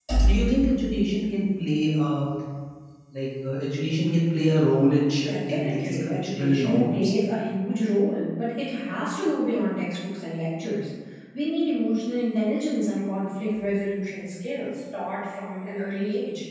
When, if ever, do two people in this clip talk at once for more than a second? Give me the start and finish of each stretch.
5.2-7.1

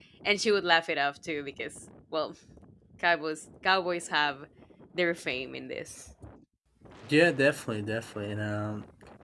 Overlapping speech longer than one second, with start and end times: none

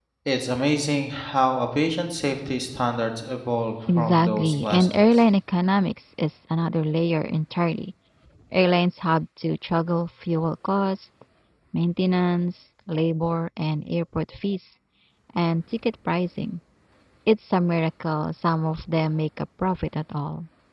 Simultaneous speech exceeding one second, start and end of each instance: 4.0-5.2

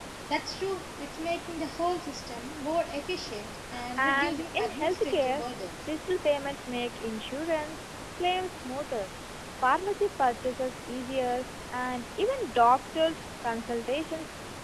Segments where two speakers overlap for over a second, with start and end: 4.0-5.4

